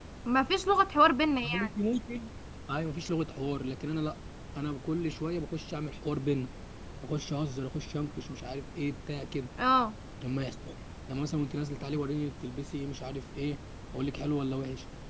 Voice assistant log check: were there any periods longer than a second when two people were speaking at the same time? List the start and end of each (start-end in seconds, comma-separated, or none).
none